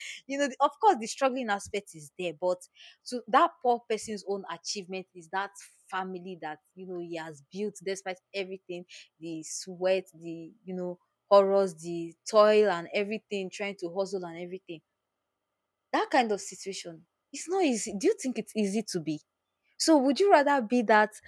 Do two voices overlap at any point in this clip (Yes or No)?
No